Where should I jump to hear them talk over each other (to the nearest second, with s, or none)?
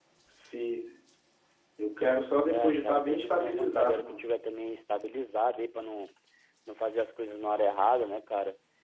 2 s